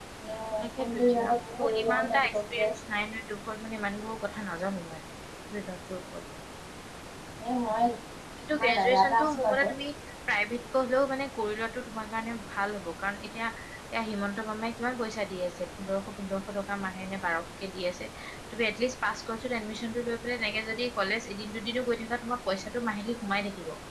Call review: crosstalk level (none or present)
present